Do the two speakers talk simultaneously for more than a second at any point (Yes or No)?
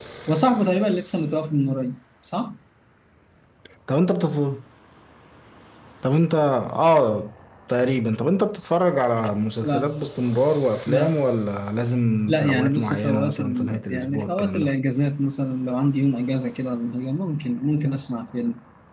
Yes